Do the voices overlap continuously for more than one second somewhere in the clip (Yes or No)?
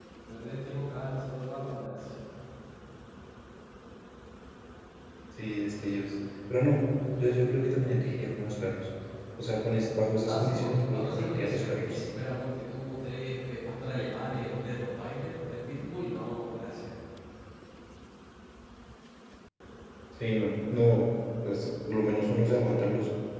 Yes